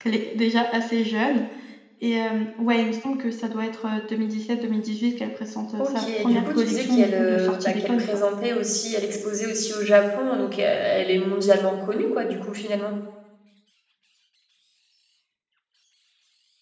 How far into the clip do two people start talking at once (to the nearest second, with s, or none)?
6 s